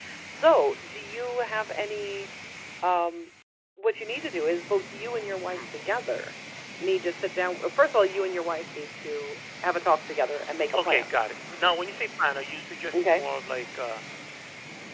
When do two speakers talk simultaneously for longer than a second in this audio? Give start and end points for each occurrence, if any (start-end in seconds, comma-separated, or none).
none